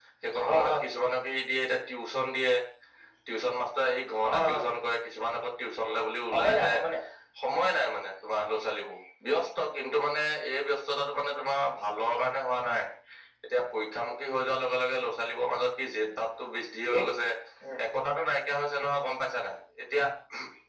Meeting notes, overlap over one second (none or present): none